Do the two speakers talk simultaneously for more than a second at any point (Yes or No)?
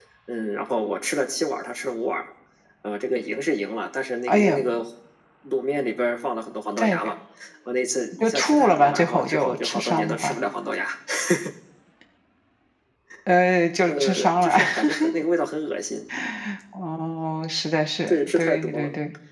Yes